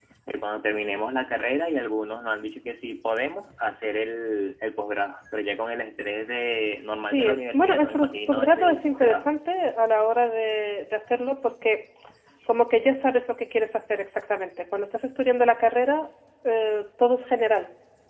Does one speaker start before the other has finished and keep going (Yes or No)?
Yes